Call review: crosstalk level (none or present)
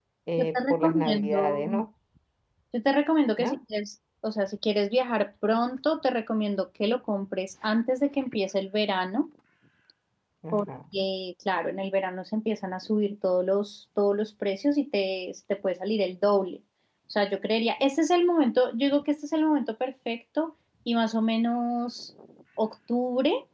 present